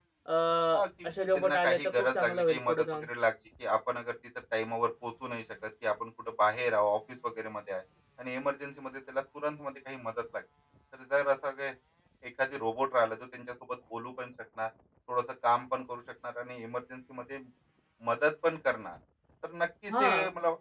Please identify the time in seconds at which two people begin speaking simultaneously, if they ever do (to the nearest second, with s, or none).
1 s